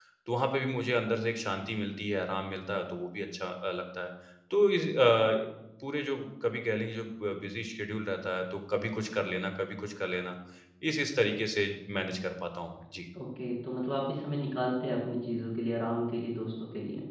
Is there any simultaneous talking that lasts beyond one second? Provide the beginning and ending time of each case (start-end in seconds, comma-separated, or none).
none